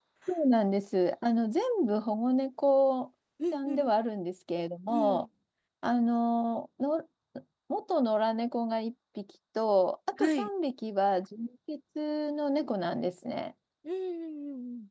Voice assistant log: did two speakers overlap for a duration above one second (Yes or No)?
No